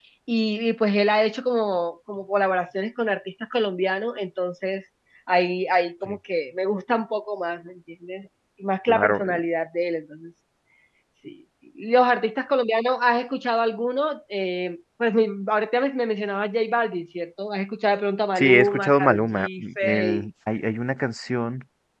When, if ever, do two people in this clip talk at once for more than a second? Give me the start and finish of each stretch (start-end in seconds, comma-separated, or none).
18.4-20.3